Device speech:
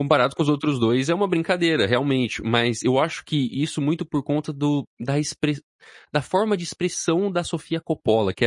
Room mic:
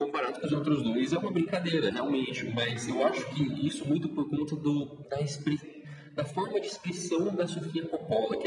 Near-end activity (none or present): none